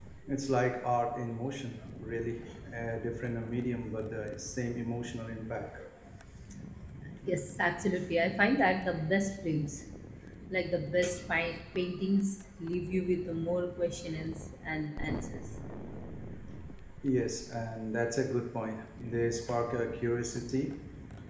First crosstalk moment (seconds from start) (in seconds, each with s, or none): none